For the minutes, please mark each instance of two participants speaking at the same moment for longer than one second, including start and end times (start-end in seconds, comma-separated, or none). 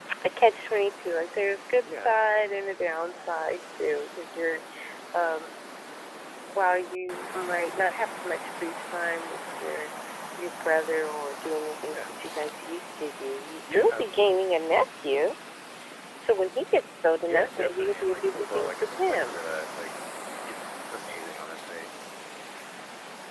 17.3-19.4